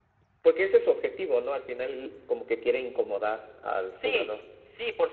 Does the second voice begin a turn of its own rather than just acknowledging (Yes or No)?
Yes